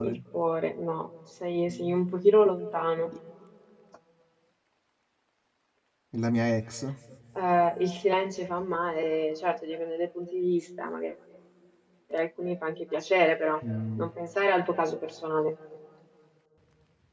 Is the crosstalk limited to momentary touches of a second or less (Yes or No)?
Yes